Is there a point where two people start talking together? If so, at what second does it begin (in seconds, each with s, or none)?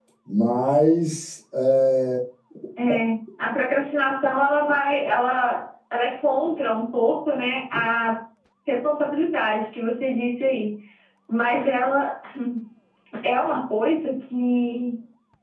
none